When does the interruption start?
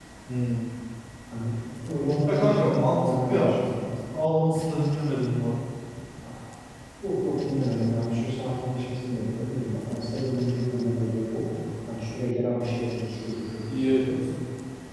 2 s

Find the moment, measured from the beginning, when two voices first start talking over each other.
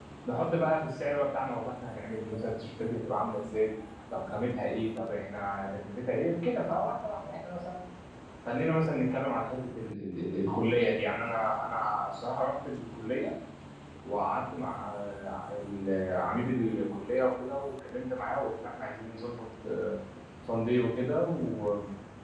none

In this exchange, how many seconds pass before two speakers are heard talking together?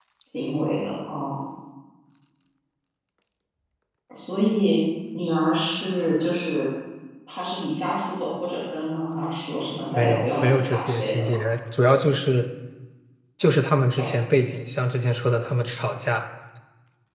10 s

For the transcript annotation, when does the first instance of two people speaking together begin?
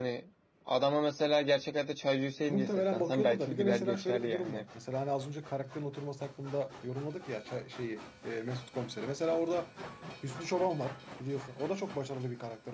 2 s

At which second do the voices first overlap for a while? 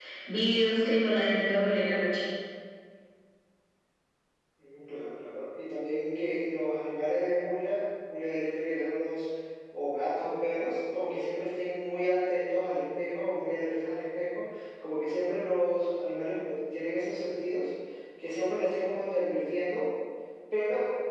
none

